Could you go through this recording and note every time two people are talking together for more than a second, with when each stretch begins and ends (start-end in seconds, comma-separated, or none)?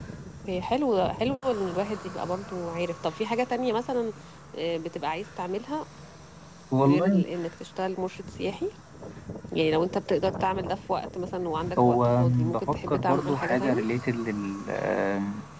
11.8-13.8